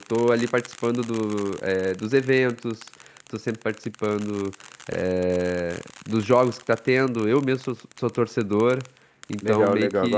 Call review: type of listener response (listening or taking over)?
taking over